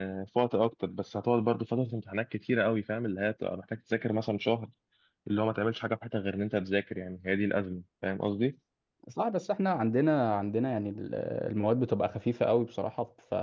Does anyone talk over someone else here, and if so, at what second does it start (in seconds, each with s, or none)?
none